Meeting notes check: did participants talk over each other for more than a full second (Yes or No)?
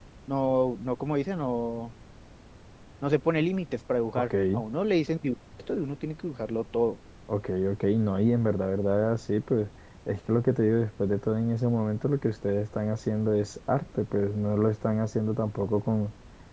No